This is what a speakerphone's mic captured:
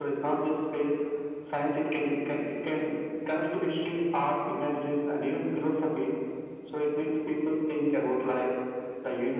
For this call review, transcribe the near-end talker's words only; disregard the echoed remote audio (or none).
none